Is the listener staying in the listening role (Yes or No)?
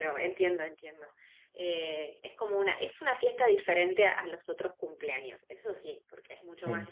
Yes